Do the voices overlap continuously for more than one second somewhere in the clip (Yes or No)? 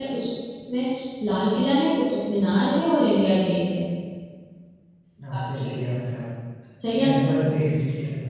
No